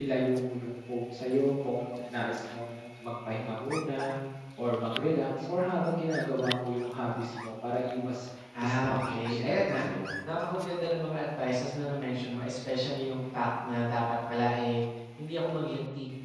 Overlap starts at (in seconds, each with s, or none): 8.5 s